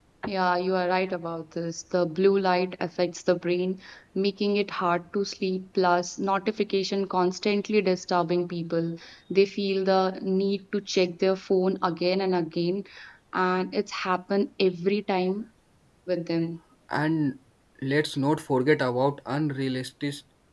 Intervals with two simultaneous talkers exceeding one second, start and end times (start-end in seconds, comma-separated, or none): none